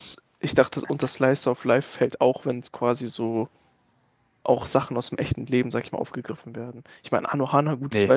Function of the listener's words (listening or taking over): listening